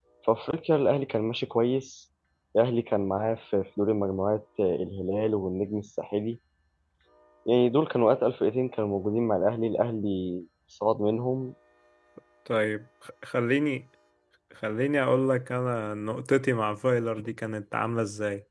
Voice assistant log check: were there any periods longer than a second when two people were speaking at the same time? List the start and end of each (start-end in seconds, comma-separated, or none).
none